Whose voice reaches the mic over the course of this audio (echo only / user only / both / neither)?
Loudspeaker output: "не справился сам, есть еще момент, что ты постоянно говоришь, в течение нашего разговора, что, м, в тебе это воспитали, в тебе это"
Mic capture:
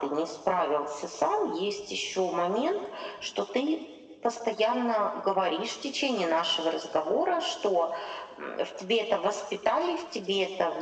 echo only